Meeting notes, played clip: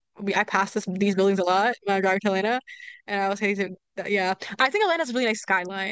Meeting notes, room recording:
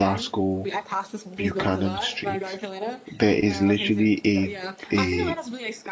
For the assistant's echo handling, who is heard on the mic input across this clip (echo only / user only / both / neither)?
both